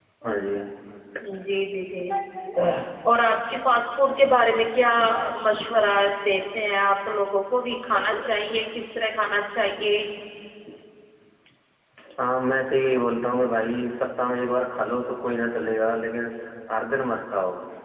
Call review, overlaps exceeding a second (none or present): none